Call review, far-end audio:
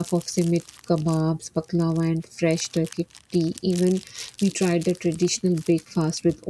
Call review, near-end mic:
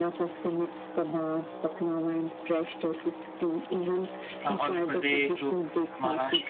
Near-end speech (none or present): present